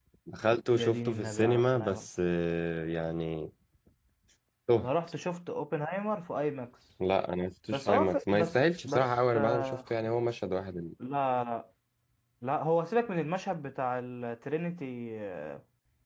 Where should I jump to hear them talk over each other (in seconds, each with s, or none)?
0.7 s